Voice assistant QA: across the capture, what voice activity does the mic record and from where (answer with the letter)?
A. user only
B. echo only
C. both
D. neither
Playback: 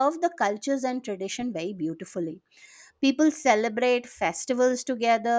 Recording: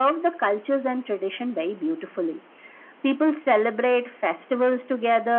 B